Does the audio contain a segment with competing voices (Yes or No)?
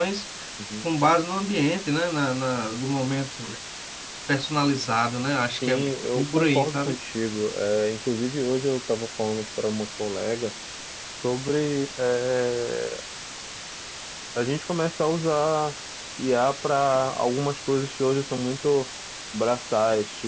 Yes